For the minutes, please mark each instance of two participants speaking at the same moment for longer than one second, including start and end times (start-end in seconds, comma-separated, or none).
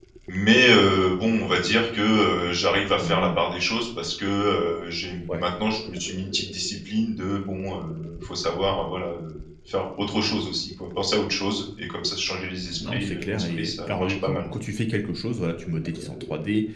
12.9-14.4